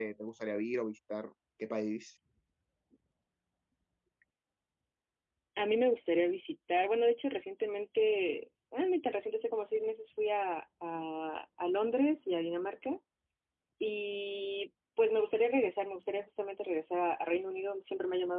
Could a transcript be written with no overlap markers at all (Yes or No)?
Yes